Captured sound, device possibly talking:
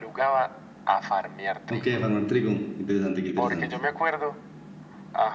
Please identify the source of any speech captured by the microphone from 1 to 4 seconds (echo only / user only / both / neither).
both